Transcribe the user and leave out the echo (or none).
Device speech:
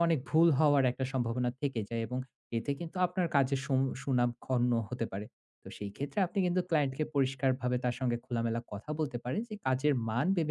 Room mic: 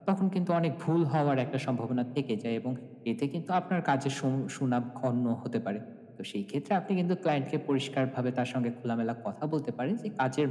none